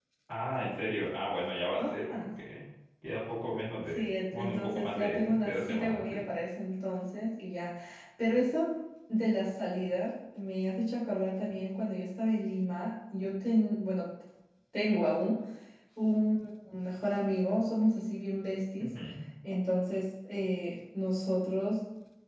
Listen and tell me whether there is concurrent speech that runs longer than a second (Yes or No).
Yes